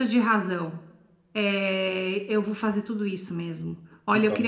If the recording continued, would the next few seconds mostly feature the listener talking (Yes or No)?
No